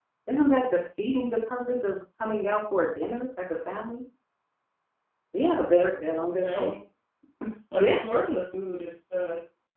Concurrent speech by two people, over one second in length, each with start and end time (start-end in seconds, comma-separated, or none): none